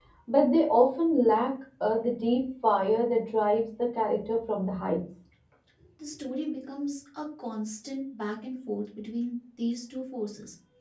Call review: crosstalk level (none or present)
none